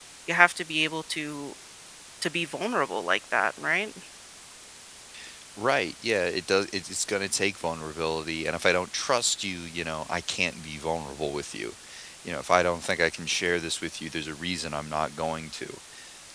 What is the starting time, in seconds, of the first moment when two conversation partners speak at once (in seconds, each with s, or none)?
none